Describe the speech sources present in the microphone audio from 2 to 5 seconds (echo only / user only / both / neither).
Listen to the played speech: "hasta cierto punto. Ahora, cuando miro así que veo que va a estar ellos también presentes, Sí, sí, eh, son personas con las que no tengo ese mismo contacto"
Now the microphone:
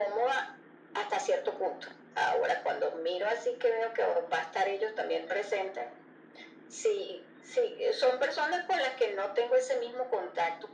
echo only